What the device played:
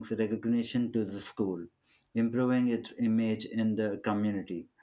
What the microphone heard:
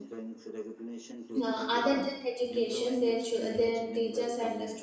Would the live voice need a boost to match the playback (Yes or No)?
No